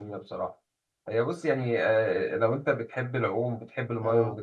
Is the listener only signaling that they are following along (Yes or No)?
Yes